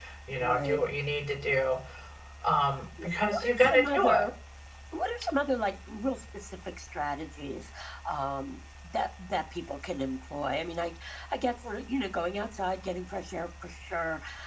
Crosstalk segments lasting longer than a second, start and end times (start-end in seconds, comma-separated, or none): 3.0-4.3